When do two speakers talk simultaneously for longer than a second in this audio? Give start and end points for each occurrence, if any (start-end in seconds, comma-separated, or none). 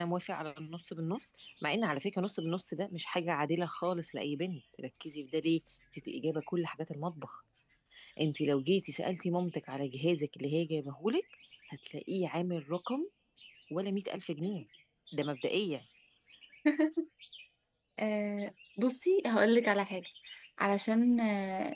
none